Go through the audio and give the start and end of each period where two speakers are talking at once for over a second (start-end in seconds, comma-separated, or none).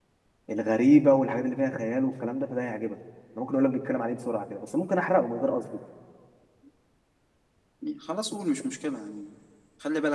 none